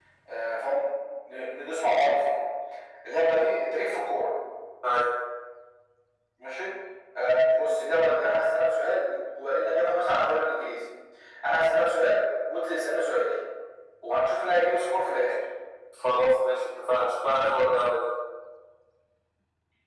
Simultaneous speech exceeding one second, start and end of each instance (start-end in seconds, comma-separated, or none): none